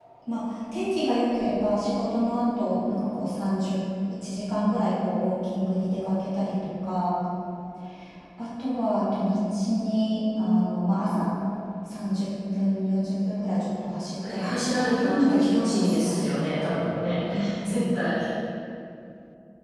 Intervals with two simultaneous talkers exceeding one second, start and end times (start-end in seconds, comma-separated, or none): 14.3-16.7